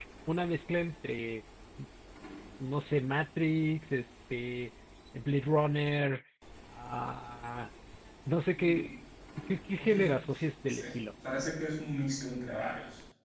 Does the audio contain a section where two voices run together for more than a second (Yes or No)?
No